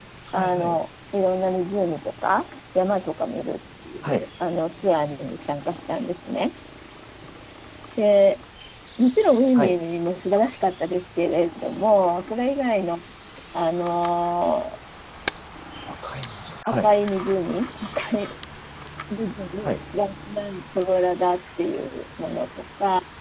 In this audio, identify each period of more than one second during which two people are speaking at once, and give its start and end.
none

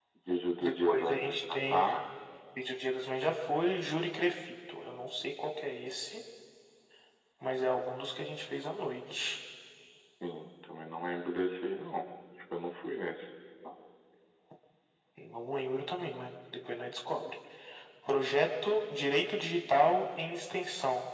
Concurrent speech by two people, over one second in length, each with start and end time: 0.6-1.8

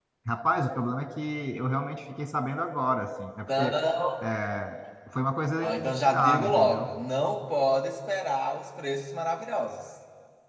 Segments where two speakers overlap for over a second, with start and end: 5.6-6.9

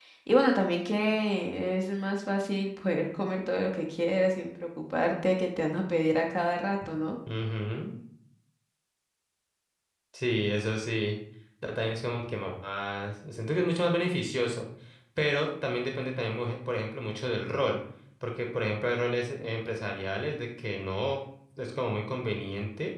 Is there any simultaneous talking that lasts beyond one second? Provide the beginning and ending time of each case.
none

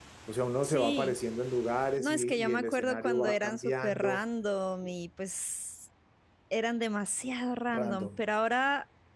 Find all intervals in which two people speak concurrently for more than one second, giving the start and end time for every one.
2.0-4.2

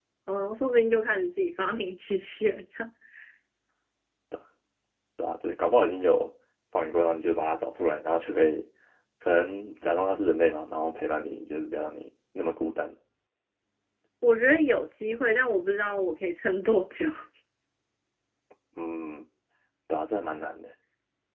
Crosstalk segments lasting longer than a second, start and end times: none

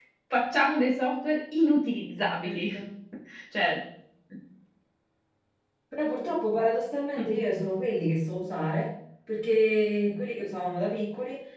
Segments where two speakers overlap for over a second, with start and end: none

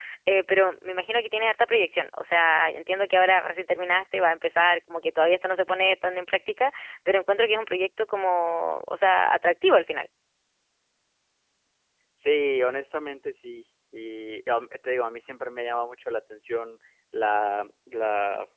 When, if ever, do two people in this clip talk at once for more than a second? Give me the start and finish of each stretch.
none

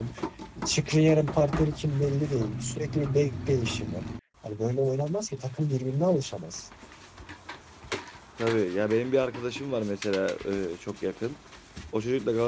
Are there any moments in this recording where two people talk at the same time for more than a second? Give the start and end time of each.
none

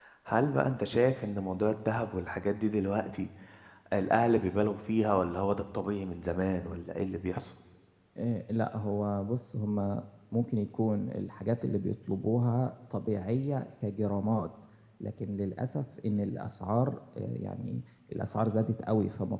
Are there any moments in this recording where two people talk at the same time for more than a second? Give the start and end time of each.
none

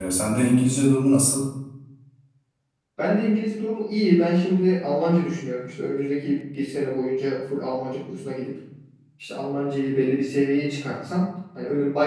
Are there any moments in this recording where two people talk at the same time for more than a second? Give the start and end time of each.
none

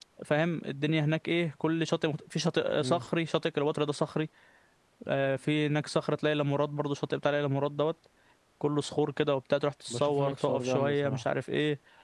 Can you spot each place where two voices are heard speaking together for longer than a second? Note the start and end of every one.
9.9-11.2

